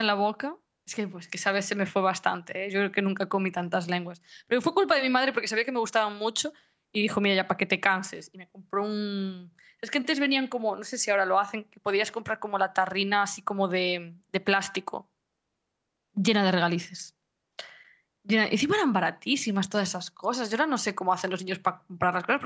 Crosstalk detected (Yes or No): No